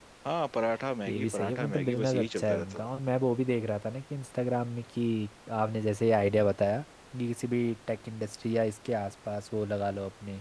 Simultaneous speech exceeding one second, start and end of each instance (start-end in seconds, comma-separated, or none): 1.1-2.9